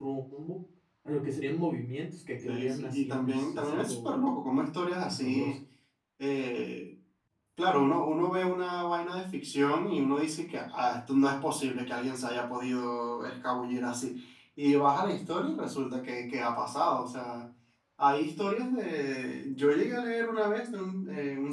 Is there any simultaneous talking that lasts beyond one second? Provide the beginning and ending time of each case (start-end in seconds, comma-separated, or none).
2.5-4.1